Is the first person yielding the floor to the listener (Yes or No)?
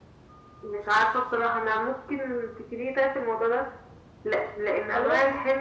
No